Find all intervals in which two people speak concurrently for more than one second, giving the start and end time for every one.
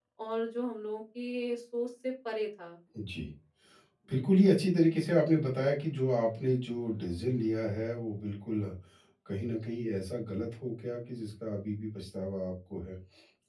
none

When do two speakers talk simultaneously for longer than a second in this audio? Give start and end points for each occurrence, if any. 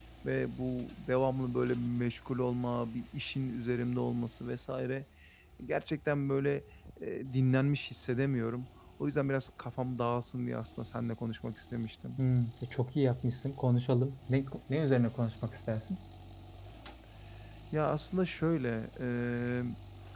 none

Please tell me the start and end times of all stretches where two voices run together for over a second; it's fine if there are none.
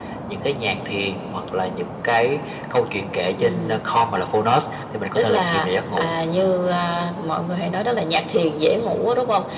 5.2-6.5

